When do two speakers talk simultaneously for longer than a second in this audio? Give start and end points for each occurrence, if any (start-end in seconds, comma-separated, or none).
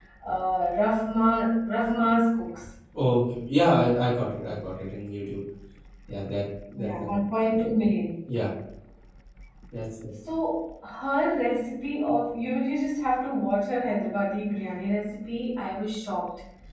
none